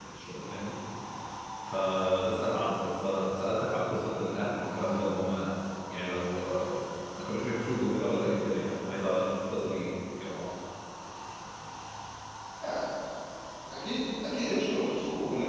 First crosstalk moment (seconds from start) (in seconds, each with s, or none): none